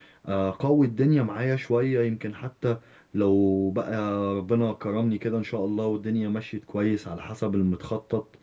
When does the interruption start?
none

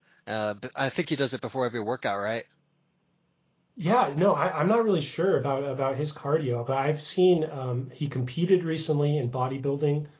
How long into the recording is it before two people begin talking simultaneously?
none

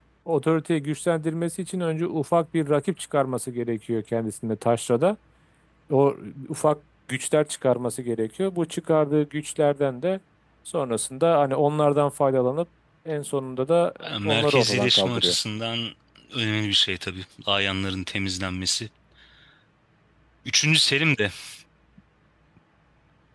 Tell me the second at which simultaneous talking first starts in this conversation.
14.0 s

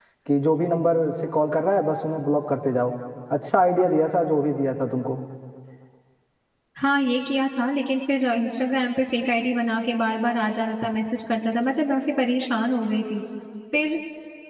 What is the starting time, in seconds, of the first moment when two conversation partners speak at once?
none

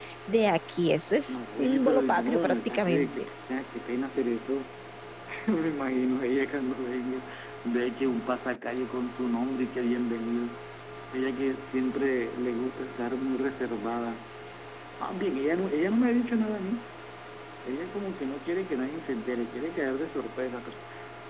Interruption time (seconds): 1.3 s

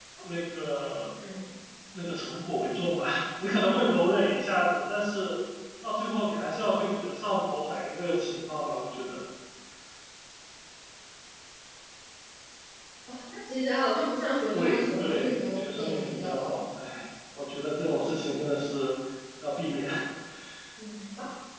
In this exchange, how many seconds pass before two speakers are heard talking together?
14.5 s

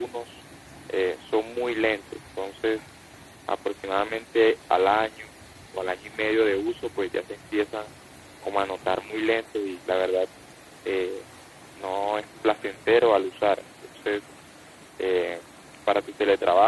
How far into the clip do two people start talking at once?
none

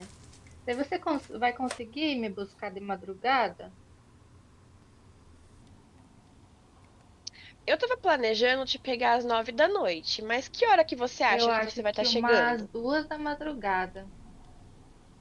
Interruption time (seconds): 11.3 s

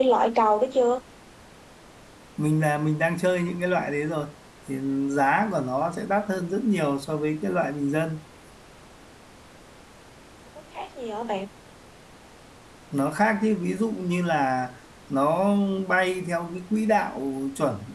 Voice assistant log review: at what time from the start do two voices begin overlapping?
none

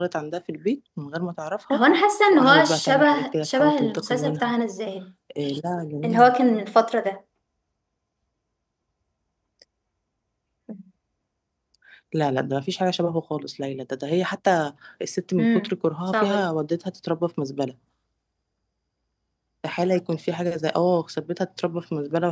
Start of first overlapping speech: 2.3 s

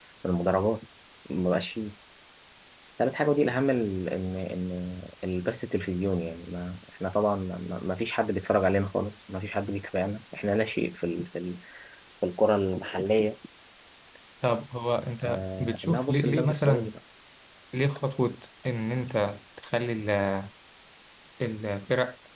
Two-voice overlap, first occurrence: 15.2 s

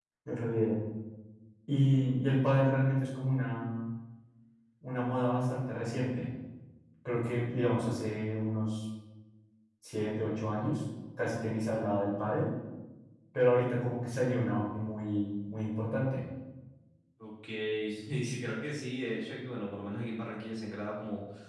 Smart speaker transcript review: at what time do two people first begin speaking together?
none

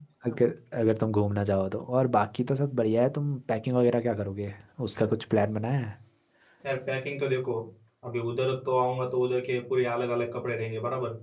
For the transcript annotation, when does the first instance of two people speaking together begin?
none

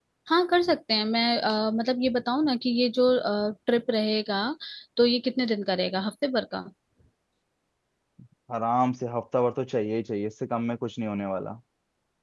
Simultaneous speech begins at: none

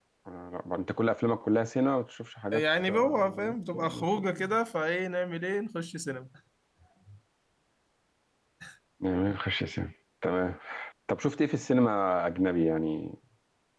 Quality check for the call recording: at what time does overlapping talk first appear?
2.5 s

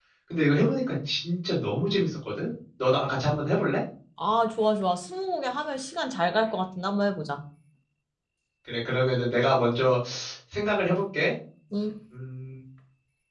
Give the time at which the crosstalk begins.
none

